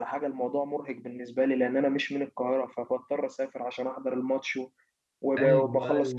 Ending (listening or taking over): taking over